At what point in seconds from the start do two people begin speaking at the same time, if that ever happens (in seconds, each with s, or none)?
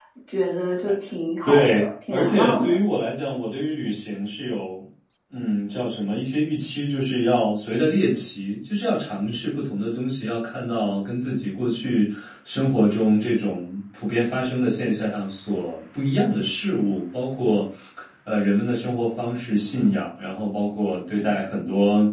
1.4 s